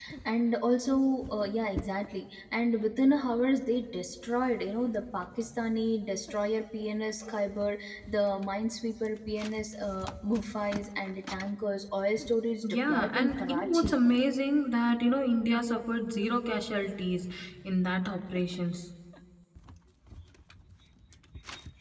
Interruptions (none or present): present